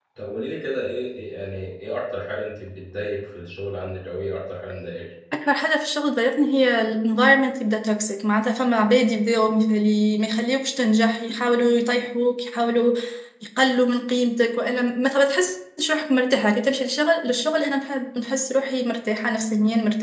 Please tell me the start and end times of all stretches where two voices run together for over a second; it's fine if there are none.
none

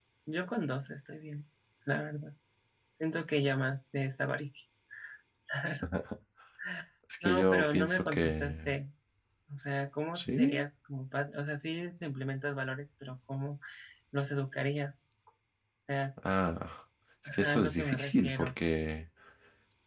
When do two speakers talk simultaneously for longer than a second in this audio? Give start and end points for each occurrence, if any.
7.2-8.7, 17.2-18.5

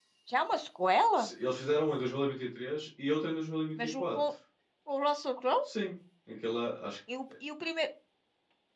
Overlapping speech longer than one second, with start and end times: none

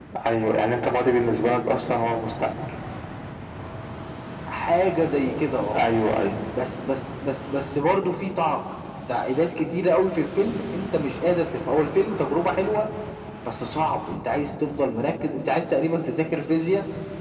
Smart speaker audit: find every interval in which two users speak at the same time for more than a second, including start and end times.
none

